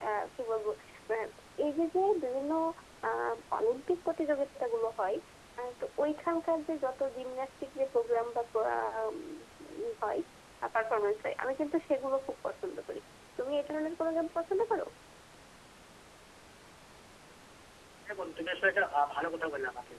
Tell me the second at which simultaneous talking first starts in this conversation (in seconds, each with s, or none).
none